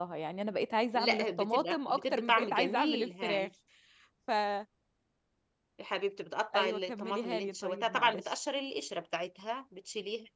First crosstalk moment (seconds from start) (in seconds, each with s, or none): 0.9 s